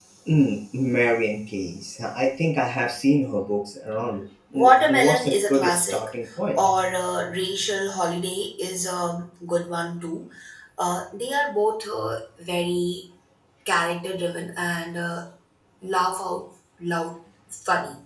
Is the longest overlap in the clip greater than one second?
Yes, from 4.6 s

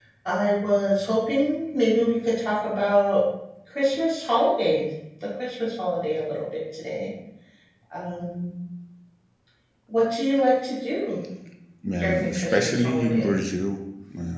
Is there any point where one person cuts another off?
Yes, from 12.0 s

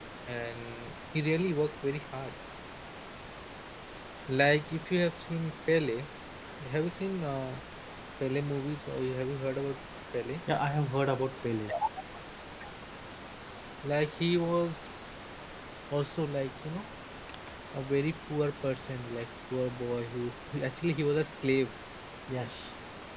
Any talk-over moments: No

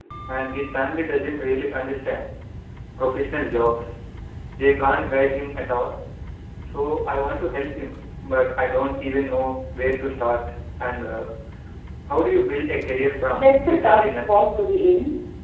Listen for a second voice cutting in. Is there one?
Yes, from 13.3 s

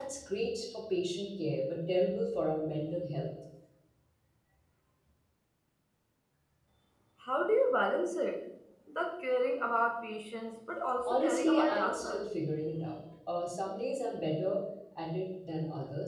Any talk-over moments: Yes, from 11.0 s

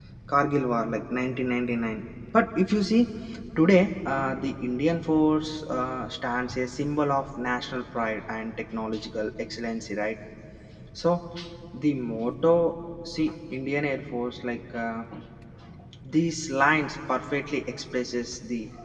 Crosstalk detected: No

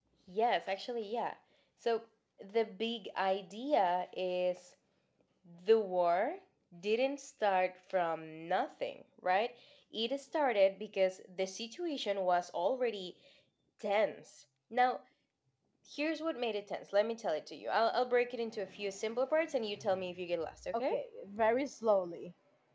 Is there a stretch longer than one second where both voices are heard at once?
No

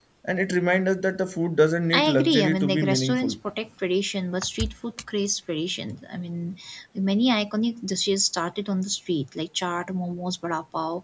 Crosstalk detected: Yes, from 1.9 s

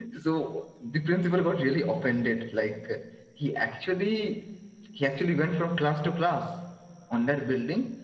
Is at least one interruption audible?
No

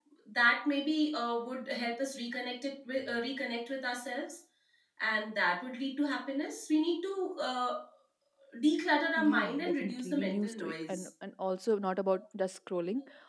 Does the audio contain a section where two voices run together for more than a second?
Yes, from 9.2 s

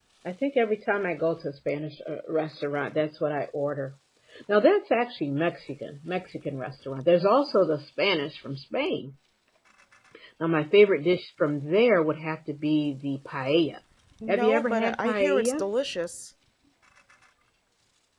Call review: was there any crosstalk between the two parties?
Yes, from 14.3 s

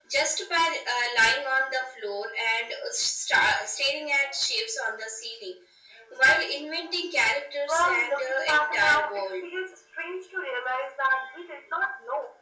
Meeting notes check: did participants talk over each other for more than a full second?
Yes, from 7.7 s

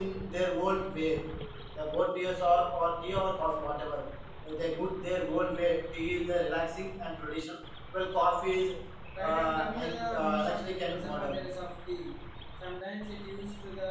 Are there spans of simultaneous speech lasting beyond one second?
Yes, from 9.2 s

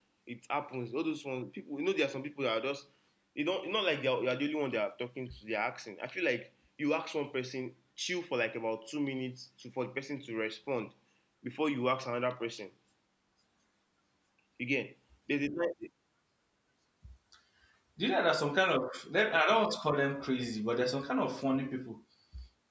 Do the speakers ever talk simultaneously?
No

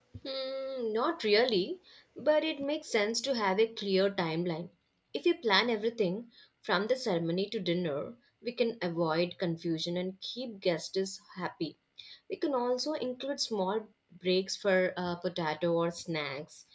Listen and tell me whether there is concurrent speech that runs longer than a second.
No

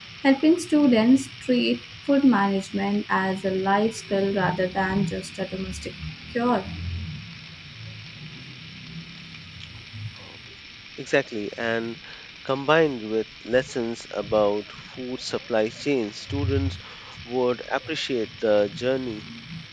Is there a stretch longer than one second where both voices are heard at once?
No

